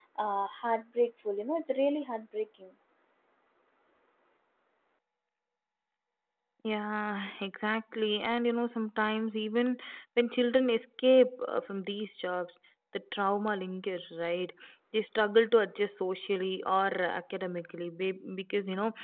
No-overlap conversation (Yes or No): Yes